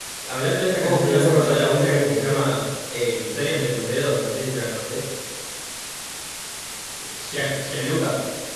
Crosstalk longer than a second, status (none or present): present